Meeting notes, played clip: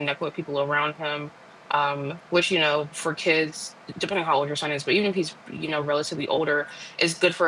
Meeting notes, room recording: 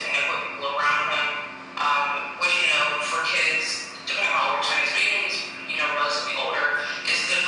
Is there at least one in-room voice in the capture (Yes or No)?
No